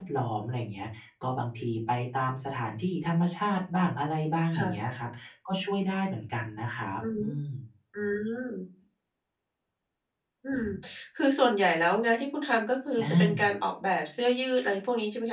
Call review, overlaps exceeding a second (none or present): none